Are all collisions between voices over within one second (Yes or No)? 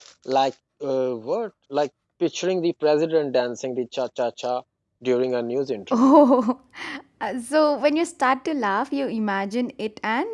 Yes